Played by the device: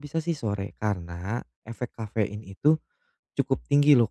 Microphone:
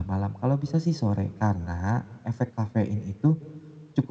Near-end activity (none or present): none